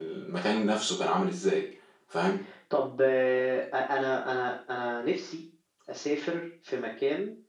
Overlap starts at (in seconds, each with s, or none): none